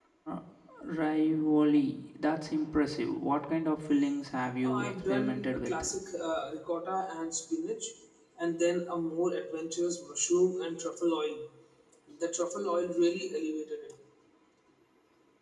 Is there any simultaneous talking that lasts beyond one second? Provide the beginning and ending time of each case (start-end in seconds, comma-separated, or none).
4.6-5.8